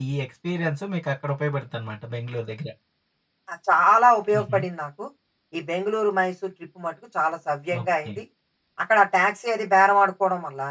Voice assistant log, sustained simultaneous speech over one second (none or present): none